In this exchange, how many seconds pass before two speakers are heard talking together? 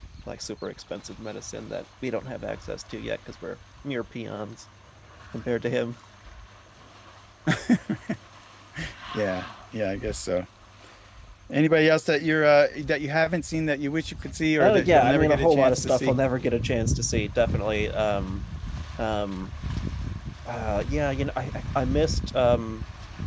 14.6 s

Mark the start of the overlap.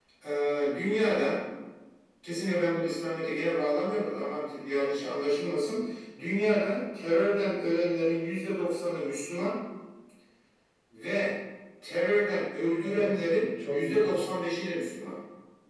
12.8 s

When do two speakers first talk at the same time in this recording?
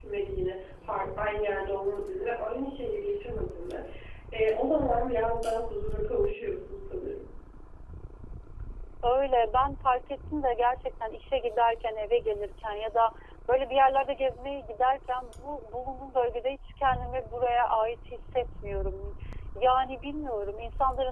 none

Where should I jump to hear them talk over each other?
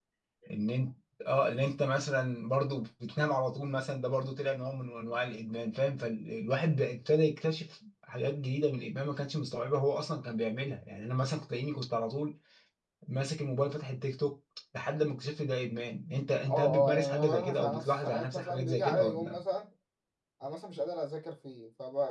16.5 s

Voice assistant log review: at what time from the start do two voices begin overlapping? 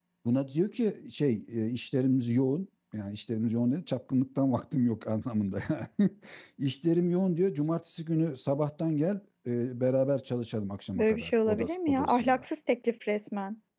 10.9 s

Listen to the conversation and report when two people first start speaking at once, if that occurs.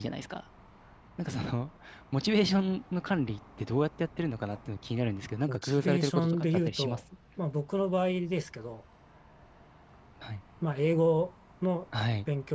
5.5 s

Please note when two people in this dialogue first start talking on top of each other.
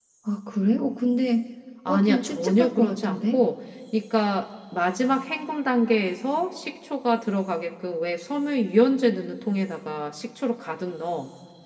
1.9 s

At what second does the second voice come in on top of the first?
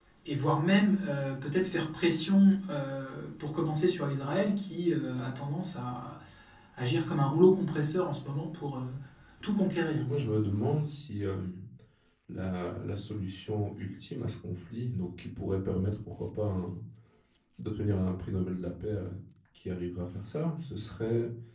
none

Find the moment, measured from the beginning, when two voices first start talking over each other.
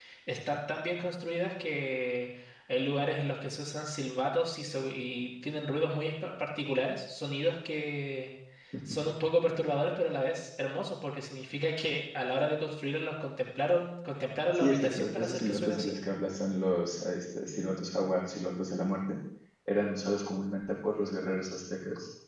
14.5 s

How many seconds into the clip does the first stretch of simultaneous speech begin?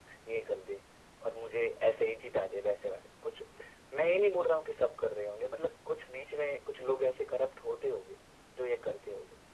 none

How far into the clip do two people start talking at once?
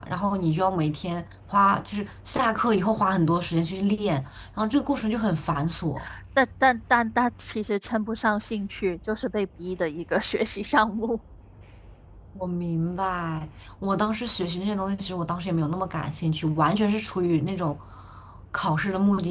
none

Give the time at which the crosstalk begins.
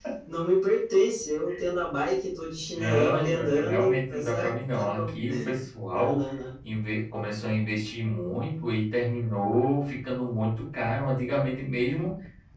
2.7 s

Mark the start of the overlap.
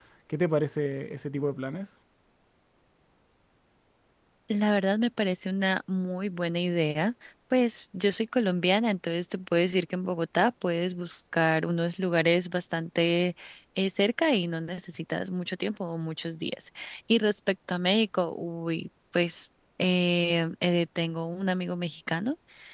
none

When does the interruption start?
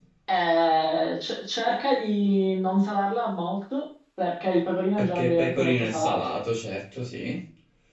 5.0 s

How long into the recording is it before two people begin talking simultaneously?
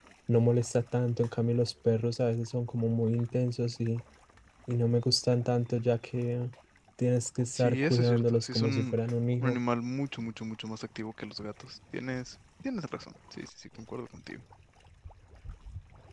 7.5 s

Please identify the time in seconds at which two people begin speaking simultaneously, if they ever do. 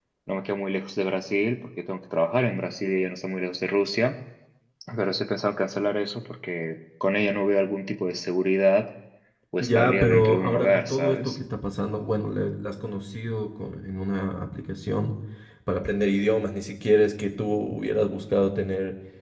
9.6 s

